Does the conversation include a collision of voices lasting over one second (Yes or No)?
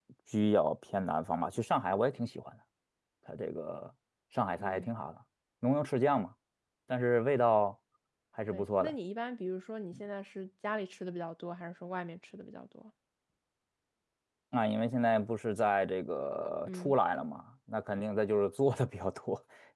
No